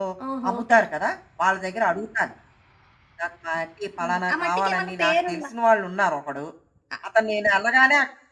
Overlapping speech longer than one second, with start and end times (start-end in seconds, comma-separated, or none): 4.1-5.4